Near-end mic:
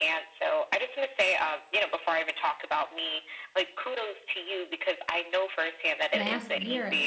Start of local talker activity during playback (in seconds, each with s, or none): 6.1 s